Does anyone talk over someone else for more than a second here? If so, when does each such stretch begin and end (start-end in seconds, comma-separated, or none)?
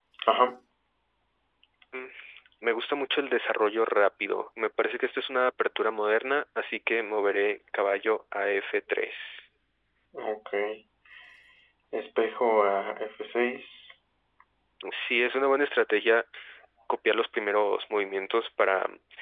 none